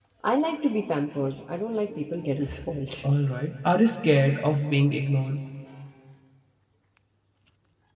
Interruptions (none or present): none